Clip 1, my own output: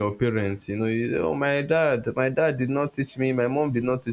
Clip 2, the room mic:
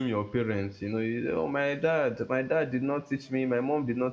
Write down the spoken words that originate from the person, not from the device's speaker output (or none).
none